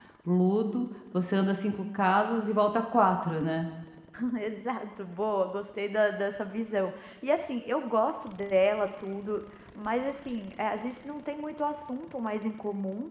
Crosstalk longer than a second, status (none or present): none